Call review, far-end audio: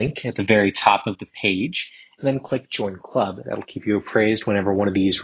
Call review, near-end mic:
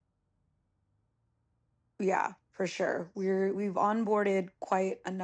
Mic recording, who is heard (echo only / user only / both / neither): user only